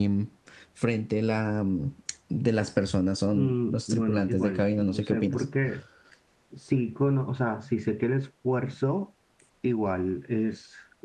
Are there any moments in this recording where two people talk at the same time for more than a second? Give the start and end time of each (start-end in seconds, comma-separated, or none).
3.3-5.4